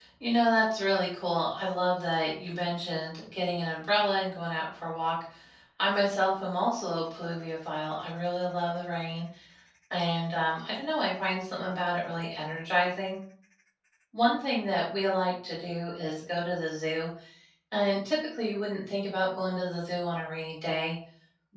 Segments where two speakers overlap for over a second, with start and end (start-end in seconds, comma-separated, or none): none